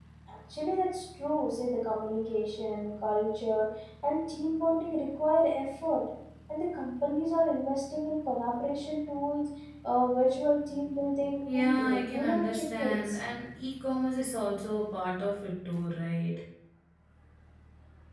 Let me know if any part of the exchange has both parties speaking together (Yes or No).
Yes